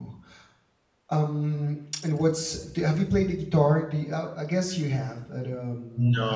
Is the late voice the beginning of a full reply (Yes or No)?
Yes